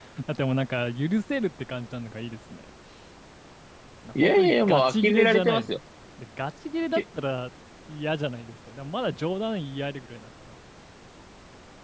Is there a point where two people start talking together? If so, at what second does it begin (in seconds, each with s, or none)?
4.2 s